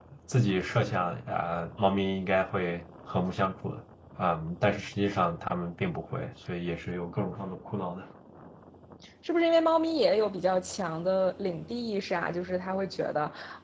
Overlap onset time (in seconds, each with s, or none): none